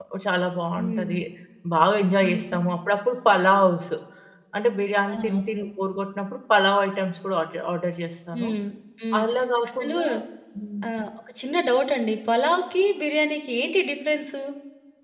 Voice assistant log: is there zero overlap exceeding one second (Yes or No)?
Yes